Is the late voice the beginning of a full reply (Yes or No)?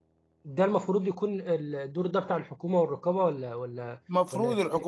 Yes